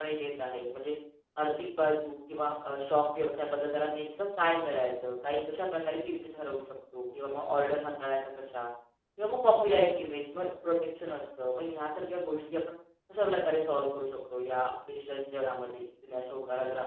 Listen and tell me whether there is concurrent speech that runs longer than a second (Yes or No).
No